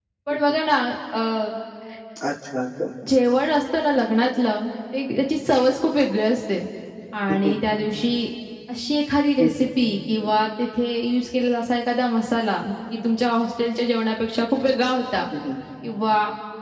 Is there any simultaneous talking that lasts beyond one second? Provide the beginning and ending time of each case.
none

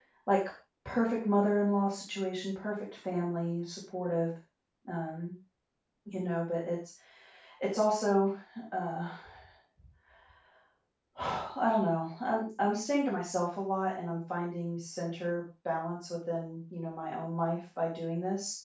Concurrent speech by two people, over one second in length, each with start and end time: none

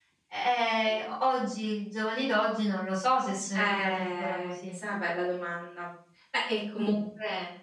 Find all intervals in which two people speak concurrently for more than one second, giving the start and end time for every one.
3.5-4.8

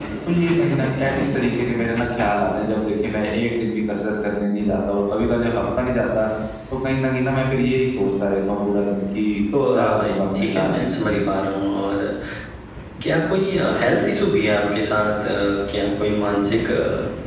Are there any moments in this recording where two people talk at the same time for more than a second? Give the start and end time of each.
9.7-11.2

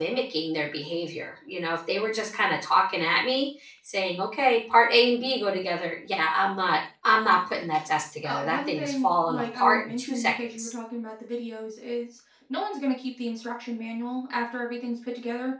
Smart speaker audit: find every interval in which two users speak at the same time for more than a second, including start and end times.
8.2-10.7

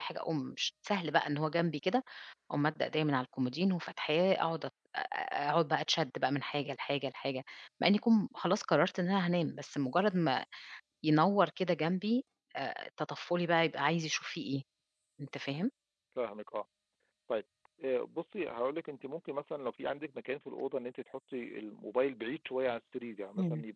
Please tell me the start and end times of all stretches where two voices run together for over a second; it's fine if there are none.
none

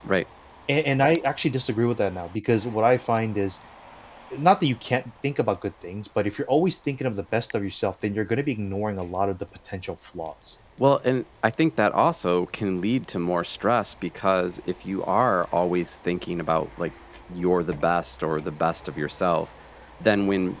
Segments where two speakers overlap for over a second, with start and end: none

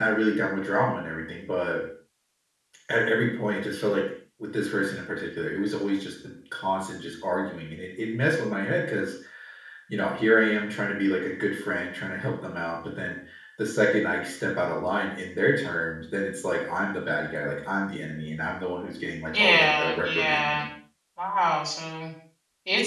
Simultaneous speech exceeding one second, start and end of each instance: 19.3-20.6

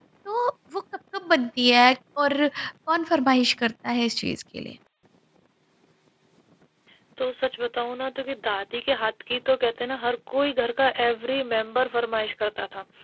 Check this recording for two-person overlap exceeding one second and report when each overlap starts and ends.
none

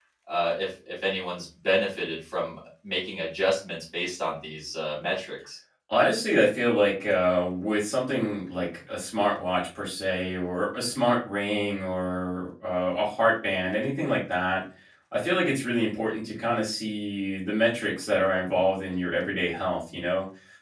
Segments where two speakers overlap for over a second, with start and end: none

